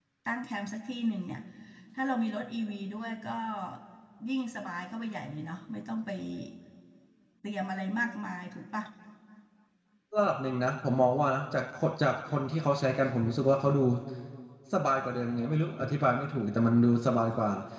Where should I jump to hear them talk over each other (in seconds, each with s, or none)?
none